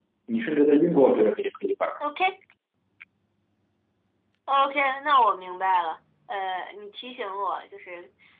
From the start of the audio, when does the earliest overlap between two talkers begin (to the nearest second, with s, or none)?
none